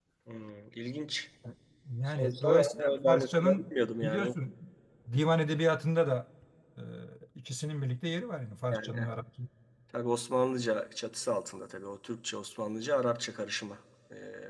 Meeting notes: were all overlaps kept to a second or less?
No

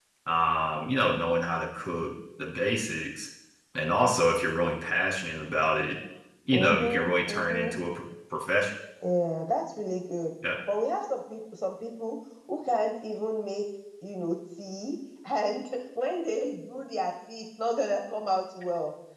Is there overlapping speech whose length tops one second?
Yes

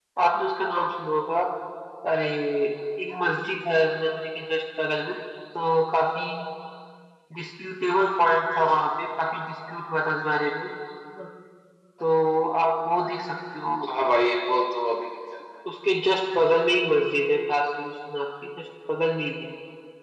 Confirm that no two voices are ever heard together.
Yes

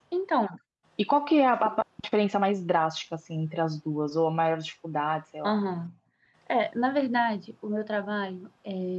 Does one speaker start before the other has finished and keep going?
No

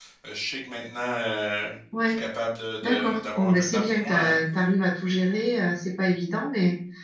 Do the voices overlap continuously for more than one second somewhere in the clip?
Yes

